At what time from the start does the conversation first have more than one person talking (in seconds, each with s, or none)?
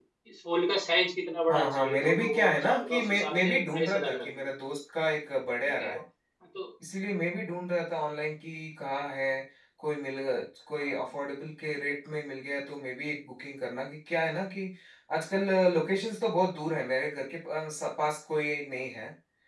1.5 s